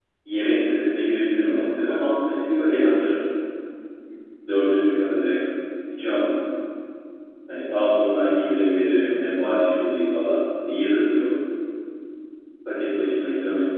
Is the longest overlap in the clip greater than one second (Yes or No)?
Yes